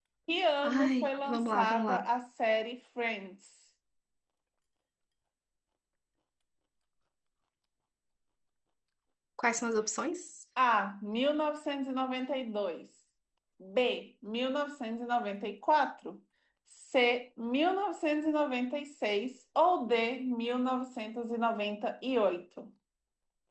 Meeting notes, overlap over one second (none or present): present